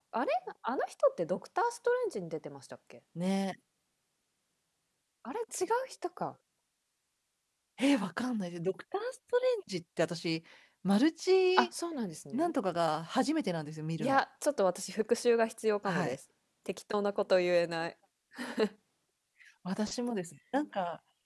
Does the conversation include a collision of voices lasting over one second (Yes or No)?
No